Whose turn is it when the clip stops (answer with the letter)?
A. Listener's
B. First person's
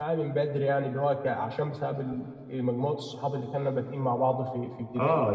A